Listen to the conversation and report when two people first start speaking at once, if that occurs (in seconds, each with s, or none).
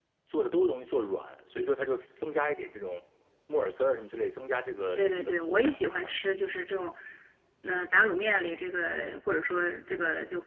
5.0 s